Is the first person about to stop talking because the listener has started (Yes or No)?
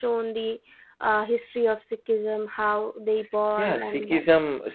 Yes